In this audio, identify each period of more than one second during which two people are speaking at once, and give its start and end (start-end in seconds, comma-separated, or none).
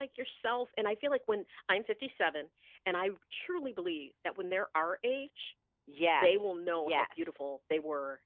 6.2-7.4